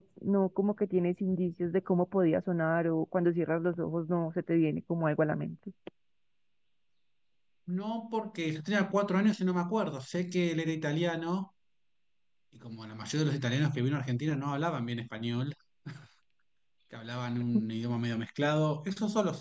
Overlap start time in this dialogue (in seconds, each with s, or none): none